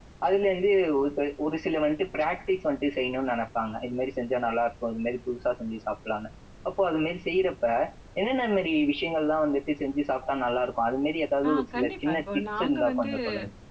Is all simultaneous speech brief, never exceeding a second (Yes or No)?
No